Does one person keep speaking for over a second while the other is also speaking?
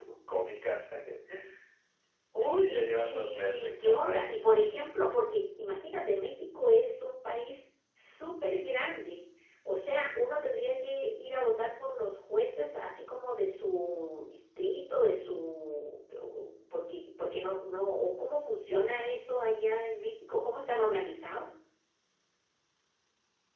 Yes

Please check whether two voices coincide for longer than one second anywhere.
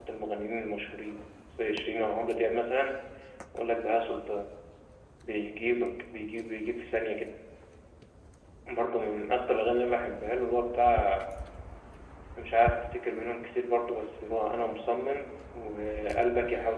No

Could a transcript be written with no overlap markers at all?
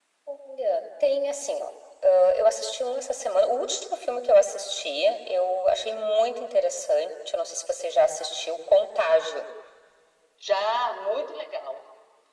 Yes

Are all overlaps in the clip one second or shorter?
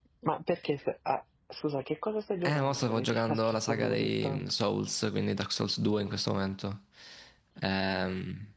No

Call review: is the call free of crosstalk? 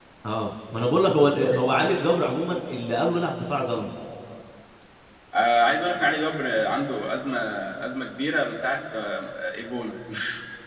Yes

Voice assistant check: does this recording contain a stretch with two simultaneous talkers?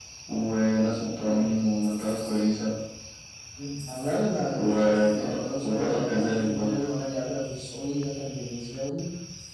Yes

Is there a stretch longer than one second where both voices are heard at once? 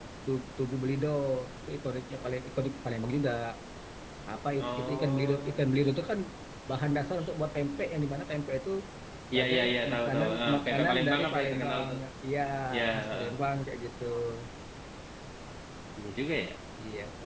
Yes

